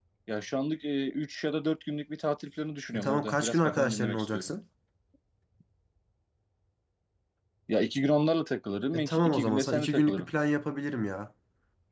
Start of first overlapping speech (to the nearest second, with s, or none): 3 s